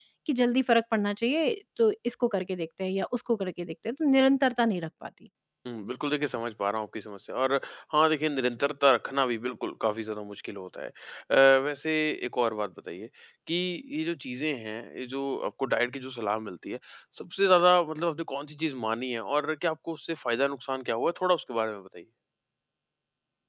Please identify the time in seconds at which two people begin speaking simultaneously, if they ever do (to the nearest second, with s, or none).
none